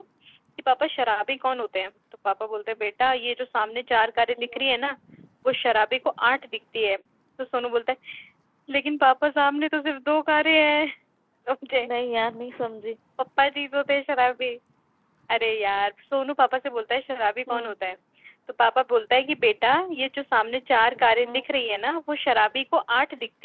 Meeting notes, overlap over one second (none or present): none